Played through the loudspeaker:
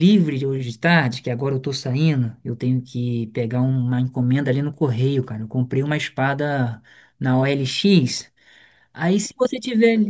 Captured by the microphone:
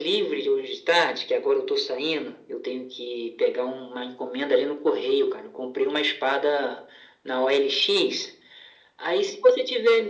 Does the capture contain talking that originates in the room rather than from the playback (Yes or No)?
No